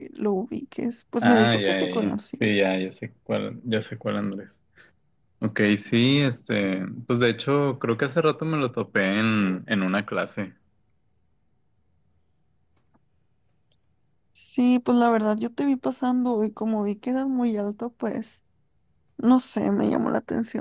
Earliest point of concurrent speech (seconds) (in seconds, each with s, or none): 1.2 s